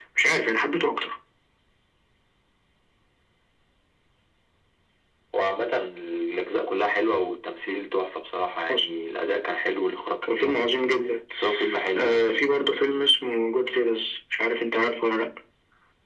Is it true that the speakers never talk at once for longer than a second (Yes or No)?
Yes